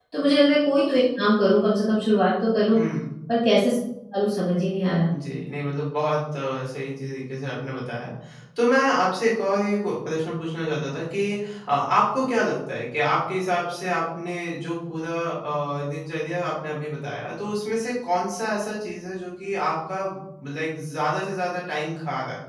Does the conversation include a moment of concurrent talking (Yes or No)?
No